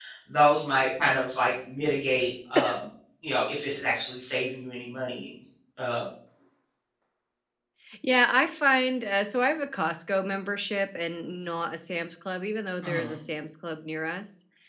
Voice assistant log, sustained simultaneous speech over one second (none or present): none